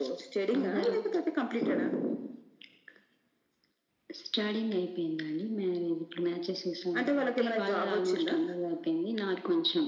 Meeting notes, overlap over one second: present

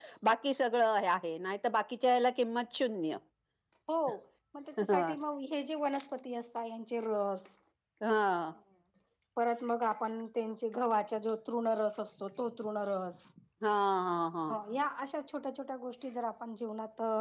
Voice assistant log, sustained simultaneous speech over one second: none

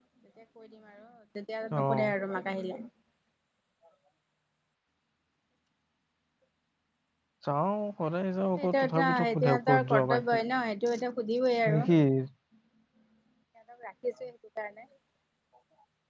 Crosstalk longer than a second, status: present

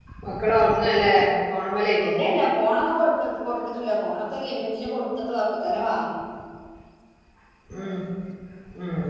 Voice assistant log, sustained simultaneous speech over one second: none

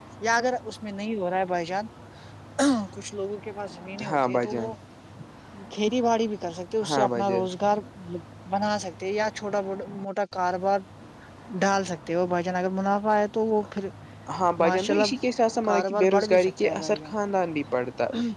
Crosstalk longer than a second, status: present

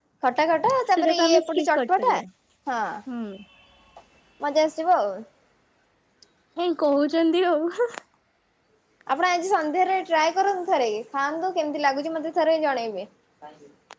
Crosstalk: present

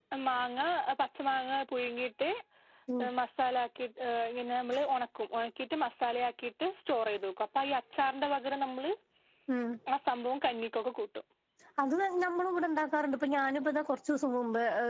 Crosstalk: none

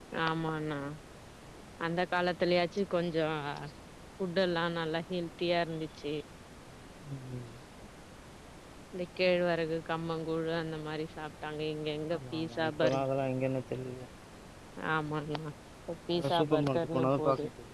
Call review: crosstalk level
present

